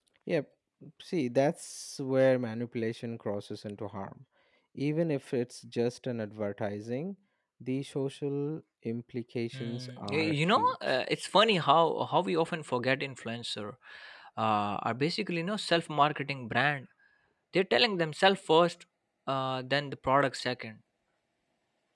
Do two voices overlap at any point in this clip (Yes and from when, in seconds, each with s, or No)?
Yes, from 9.5 s